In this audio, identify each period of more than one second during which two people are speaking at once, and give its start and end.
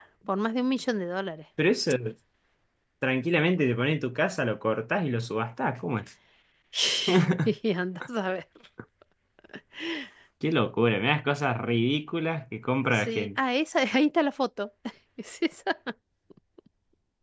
none

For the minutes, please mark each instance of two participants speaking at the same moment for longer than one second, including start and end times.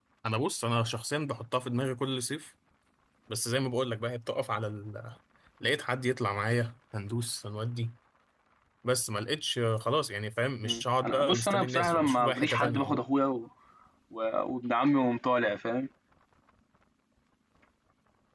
10.7-13.0

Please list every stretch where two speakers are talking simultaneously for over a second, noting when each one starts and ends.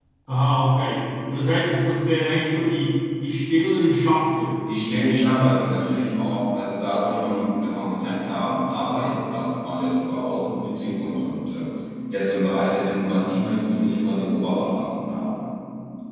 none

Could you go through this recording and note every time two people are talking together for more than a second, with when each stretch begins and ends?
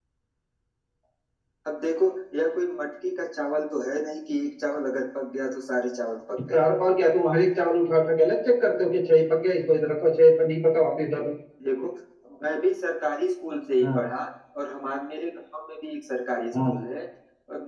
none

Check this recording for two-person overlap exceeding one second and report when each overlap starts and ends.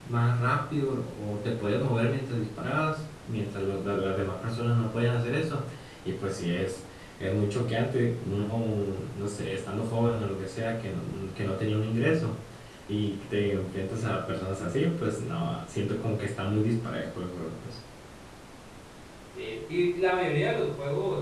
none

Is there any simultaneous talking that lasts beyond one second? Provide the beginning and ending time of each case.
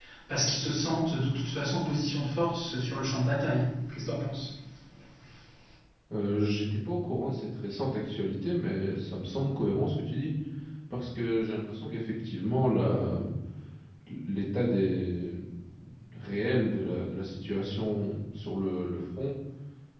none

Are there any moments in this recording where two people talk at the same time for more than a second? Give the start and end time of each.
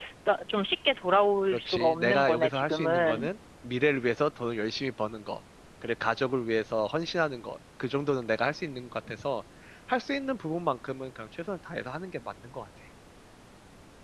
1.5-3.3

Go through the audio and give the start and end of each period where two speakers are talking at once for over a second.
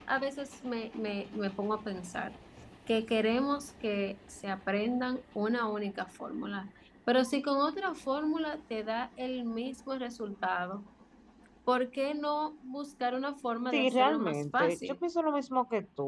13.7-14.9

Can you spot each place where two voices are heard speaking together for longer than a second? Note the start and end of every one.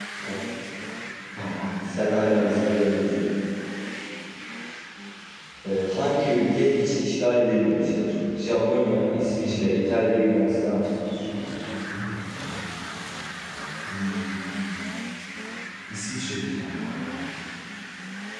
9.4-10.8

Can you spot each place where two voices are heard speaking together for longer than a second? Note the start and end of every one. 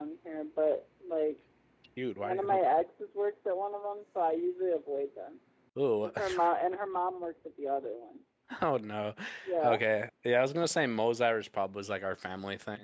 none

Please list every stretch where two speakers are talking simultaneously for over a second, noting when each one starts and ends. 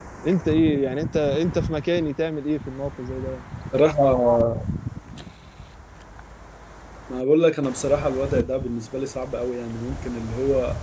none

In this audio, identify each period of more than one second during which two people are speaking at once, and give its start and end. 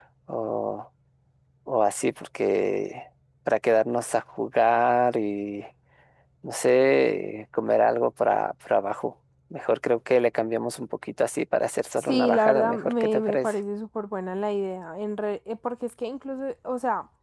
12.0-13.6

